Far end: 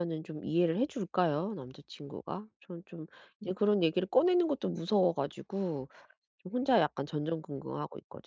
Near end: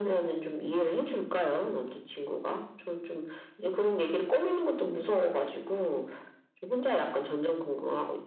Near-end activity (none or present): none